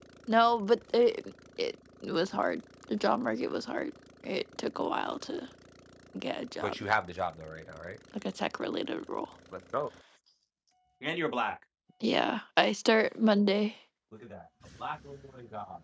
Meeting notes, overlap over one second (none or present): none